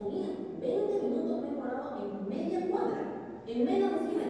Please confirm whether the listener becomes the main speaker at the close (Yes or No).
No